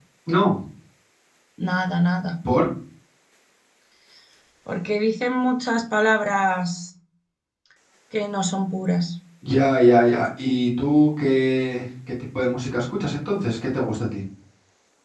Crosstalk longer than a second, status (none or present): none